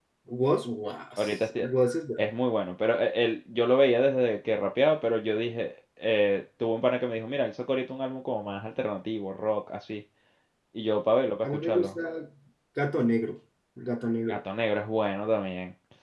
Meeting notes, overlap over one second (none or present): none